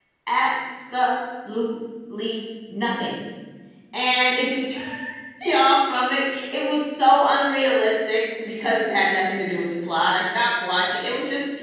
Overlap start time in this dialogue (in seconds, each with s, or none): none